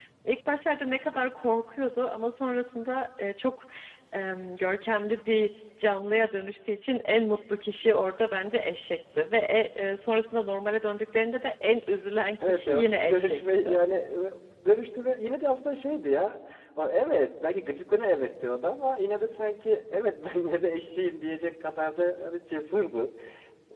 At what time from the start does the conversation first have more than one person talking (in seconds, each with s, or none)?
12.4 s